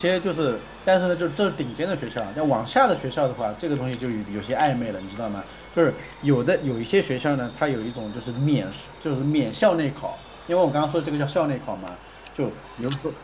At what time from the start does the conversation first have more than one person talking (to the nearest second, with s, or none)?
none